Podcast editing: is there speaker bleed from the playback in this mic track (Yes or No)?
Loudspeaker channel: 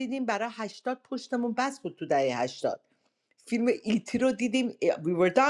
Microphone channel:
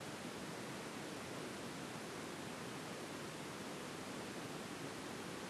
No